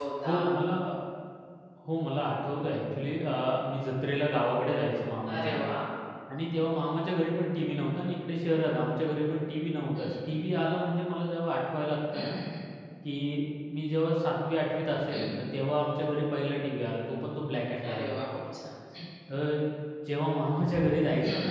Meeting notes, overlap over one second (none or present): none